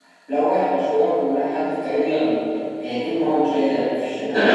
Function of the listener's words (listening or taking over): taking over